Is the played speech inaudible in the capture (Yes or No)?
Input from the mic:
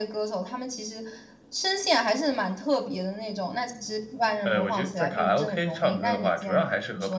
No